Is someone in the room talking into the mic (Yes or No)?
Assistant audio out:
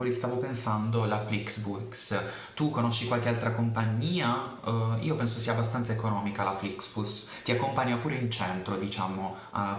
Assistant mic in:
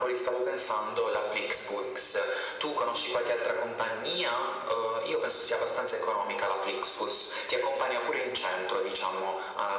No